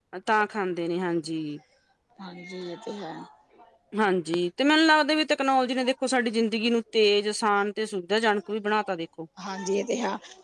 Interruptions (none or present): none